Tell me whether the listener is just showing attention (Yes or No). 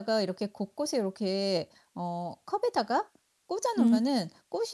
Yes